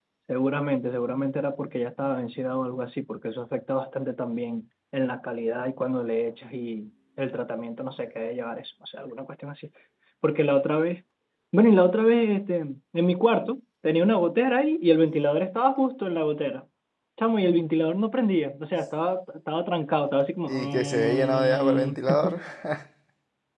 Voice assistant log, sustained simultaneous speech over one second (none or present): present